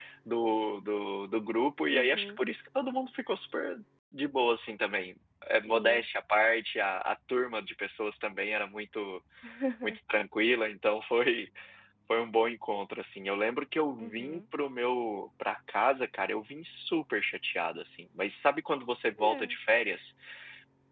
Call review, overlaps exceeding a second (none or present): none